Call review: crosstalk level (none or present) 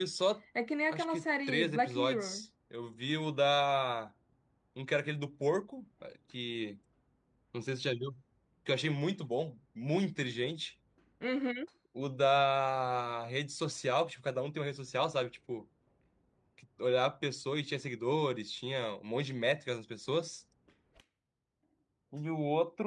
present